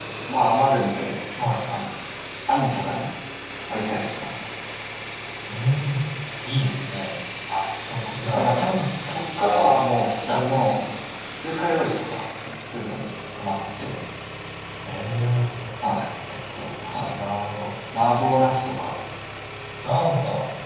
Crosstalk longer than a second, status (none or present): none